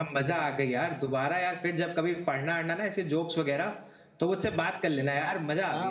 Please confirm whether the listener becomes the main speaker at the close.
Yes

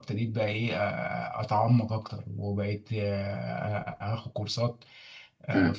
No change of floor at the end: Yes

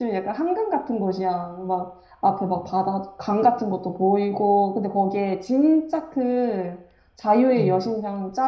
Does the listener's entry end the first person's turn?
No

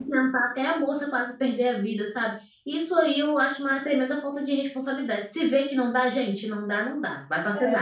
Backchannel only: No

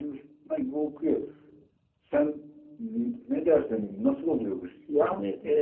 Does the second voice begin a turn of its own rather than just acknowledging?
Yes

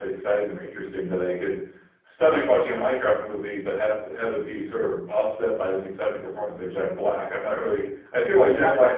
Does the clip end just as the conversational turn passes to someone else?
No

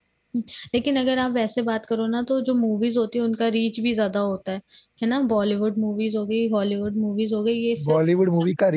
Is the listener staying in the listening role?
No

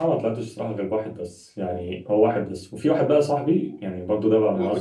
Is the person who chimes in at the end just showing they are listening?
No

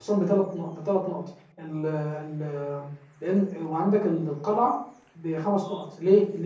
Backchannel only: Yes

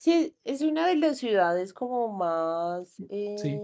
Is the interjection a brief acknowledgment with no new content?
Yes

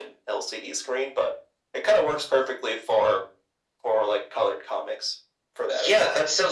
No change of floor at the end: No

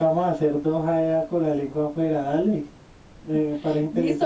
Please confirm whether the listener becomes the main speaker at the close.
Yes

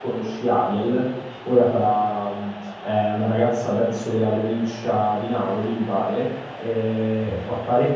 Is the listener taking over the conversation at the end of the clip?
No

